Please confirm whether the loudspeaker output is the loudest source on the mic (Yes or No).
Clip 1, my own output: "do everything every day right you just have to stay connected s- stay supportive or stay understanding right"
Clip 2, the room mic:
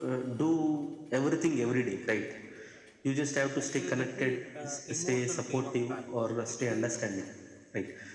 Yes